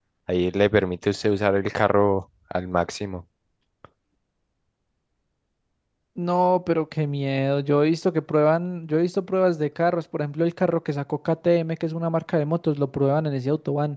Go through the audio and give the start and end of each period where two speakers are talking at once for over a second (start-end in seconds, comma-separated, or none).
none